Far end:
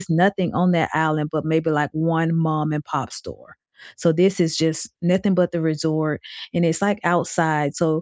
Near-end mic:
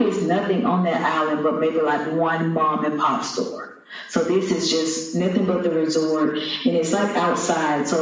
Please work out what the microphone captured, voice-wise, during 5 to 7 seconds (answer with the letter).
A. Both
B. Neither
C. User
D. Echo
D